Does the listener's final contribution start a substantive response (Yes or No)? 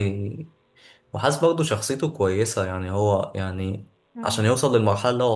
No